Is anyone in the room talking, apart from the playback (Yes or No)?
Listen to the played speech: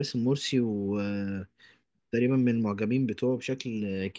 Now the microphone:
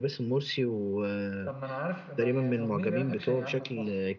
Yes